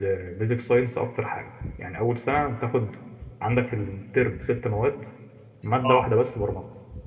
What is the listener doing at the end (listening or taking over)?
listening